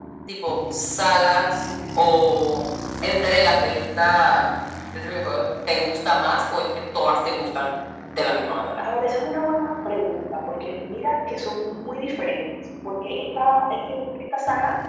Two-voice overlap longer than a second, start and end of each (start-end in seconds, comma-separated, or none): none